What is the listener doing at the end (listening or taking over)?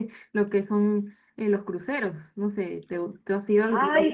taking over